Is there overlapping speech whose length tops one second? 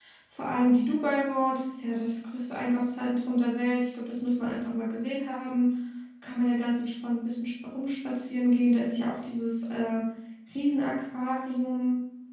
No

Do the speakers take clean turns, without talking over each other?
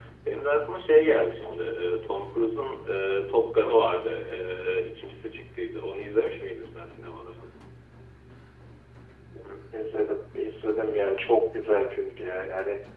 Yes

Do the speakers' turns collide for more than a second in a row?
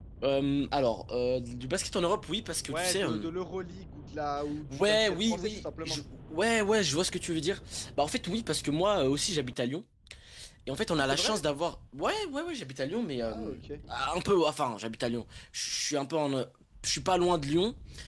Yes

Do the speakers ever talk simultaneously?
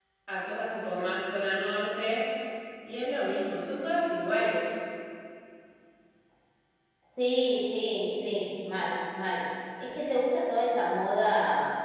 No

